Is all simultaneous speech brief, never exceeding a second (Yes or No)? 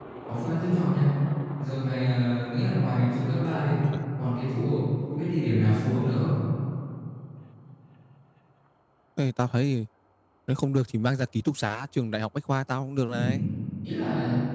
Yes